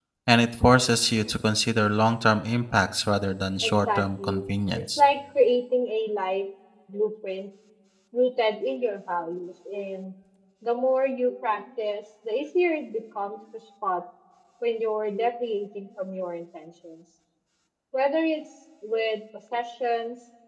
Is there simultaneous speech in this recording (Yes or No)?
Yes